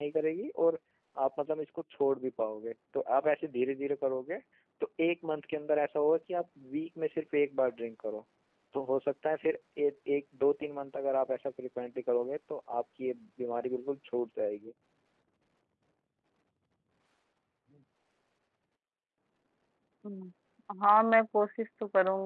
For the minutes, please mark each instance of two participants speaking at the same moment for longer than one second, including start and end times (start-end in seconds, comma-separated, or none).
none